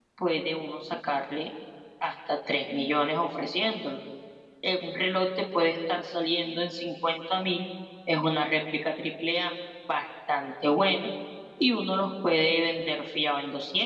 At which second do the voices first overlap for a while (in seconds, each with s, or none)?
none